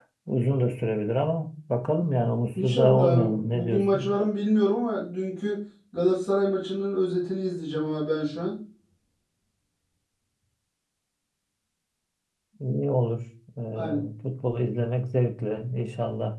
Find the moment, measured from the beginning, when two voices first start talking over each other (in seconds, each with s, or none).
2.6 s